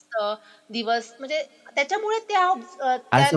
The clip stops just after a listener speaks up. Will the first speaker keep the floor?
No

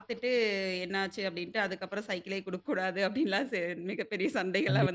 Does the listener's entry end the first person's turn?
Yes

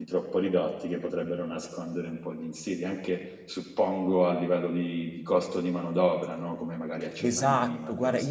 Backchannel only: No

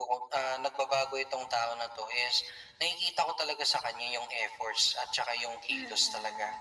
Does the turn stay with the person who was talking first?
No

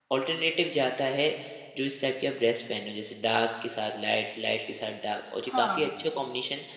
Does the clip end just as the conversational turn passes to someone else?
No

